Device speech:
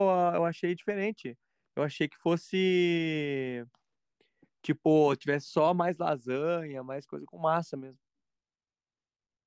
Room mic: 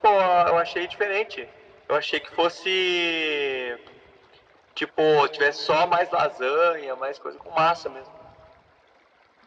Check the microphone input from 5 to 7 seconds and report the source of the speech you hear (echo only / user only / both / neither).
echo only